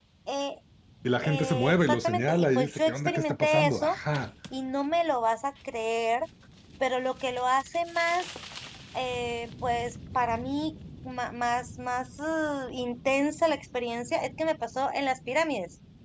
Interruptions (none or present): present